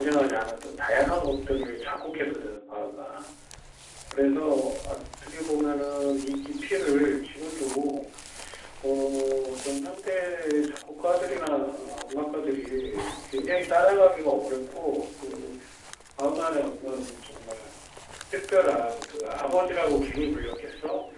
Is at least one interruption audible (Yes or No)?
No